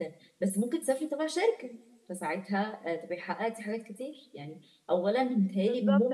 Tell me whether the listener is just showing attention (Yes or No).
No